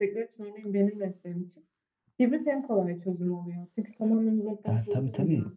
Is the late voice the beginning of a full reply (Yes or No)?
Yes